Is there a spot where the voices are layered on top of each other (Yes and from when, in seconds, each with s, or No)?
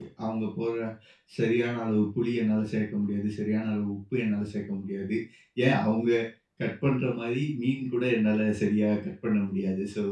No